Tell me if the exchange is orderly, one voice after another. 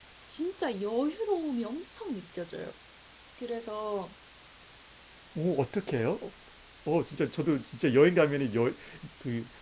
Yes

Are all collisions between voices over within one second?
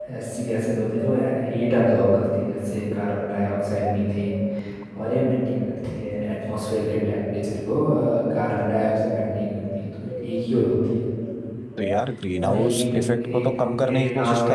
No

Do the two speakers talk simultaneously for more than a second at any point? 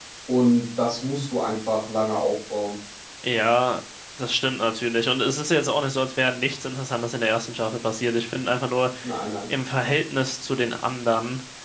No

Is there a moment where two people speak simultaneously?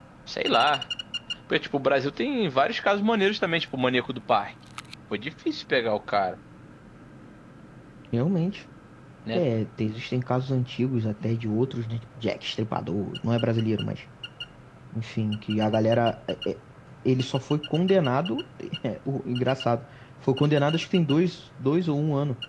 No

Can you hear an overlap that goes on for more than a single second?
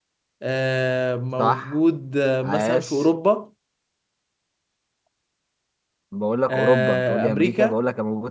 Yes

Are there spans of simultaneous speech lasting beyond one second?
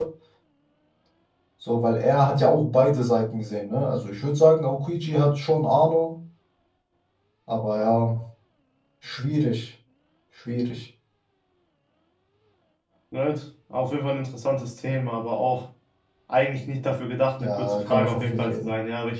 Yes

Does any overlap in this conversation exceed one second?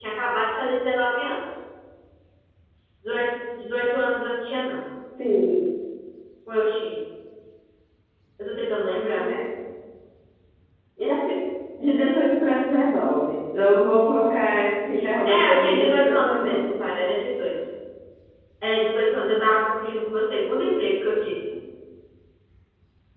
Yes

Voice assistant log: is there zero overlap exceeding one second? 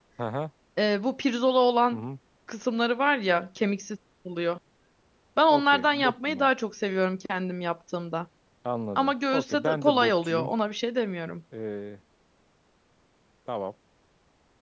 No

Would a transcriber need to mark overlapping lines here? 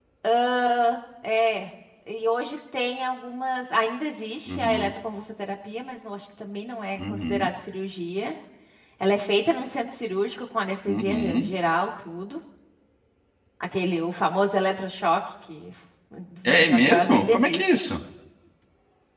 Yes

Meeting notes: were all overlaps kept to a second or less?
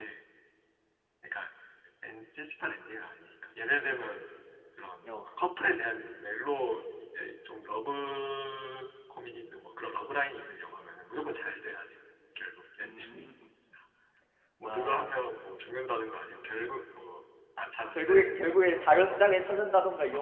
No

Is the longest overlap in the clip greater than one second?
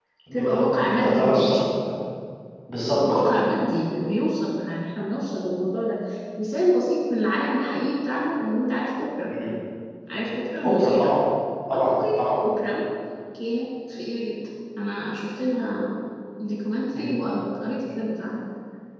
Yes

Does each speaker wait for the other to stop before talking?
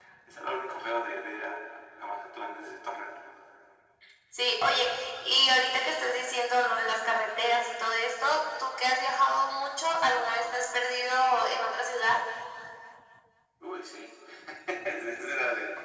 Yes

